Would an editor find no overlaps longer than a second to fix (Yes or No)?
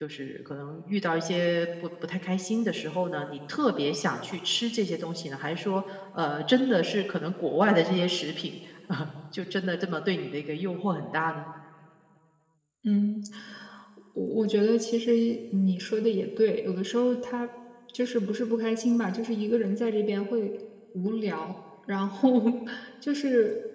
Yes